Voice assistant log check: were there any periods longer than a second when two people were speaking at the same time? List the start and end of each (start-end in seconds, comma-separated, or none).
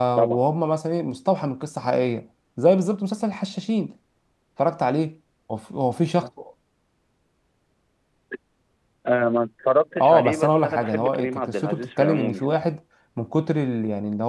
10.0-12.5